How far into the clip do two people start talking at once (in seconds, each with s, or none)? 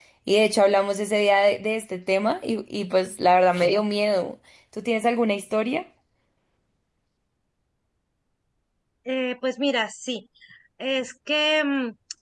none